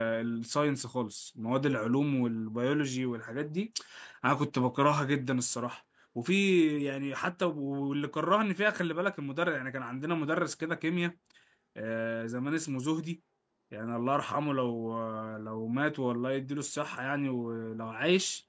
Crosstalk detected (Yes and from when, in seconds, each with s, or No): No